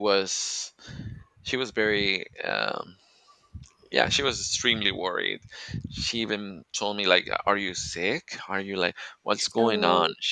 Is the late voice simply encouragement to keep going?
Yes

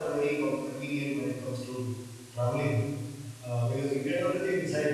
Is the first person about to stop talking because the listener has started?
No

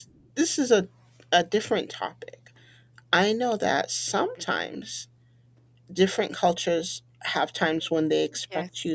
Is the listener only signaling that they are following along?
Yes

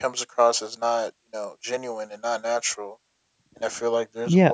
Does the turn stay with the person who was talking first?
Yes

